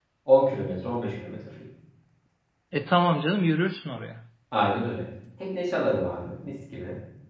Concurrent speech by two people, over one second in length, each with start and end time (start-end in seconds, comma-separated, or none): none